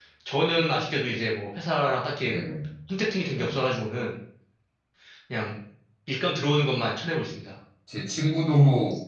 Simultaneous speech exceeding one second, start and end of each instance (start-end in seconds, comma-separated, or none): none